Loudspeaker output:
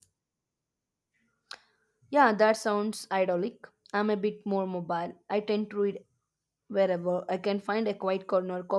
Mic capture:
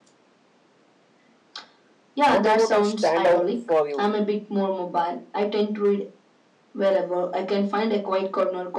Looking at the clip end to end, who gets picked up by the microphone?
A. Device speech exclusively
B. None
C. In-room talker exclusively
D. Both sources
D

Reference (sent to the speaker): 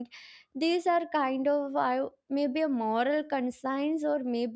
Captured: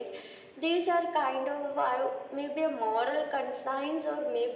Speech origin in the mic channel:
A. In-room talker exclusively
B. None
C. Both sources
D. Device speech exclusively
D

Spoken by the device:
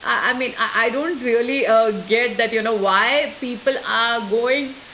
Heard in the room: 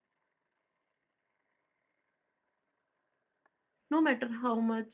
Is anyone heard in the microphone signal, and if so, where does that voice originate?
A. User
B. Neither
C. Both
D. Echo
A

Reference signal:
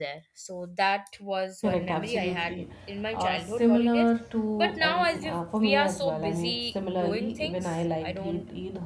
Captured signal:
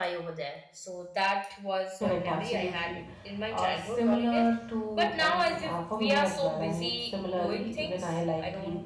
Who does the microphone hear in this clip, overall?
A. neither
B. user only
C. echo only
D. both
C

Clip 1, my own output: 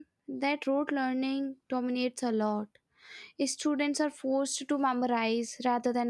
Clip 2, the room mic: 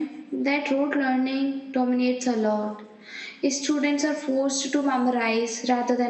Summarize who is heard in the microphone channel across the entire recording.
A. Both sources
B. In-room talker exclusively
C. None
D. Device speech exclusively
D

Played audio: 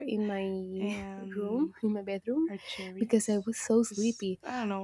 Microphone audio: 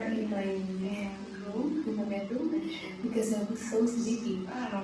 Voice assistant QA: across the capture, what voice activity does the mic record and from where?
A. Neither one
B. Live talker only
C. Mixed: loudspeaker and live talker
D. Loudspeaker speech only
D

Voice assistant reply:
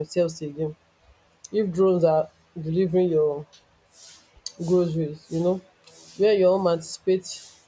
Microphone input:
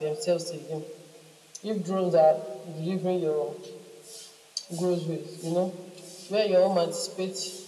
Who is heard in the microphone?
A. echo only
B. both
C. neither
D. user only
A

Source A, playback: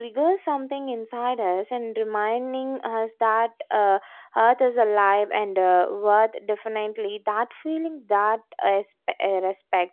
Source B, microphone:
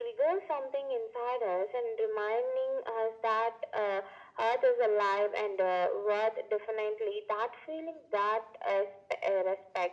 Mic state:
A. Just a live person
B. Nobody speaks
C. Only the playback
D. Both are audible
C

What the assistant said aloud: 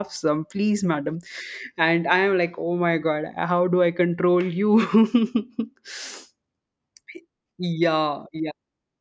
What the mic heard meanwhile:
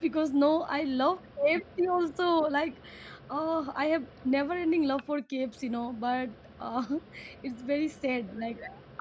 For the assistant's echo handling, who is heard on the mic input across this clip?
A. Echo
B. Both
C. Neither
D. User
D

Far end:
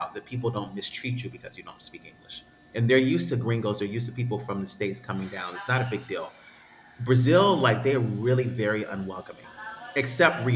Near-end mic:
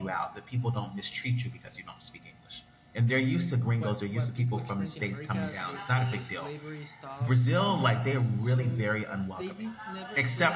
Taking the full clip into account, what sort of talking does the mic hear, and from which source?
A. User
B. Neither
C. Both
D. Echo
C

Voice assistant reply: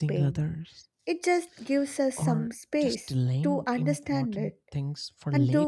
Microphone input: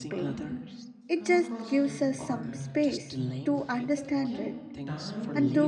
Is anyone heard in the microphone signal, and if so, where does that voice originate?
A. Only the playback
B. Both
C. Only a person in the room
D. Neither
B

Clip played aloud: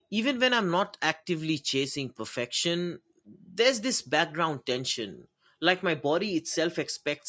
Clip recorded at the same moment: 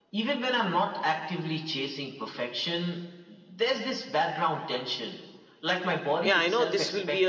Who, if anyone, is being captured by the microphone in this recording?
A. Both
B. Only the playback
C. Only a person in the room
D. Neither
A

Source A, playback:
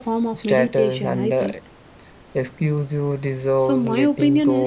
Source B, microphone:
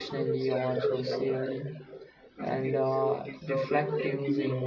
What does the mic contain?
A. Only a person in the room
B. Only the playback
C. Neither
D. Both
D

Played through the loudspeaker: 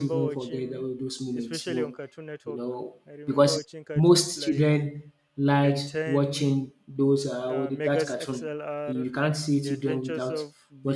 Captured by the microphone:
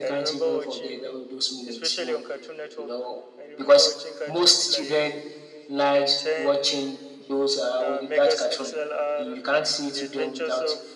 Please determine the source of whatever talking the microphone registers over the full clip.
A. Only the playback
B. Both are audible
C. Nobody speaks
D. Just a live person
A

